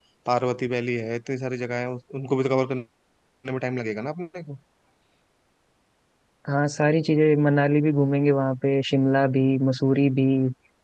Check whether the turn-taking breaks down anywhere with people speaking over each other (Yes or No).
No